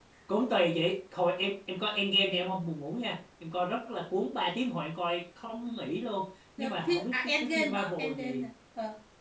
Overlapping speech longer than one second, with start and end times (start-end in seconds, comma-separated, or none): 6.6-8.4